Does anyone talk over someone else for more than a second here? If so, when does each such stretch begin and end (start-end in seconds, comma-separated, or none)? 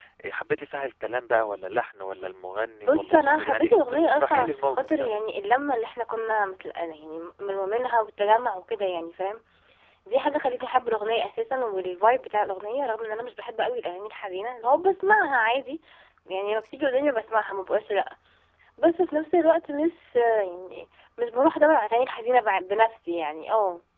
2.8-5.1